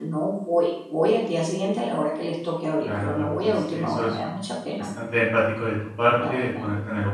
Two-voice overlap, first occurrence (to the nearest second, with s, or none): 3 s